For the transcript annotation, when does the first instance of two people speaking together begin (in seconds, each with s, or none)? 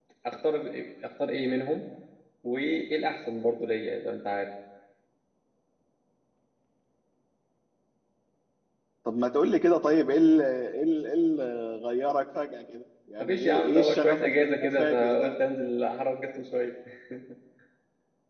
13.2 s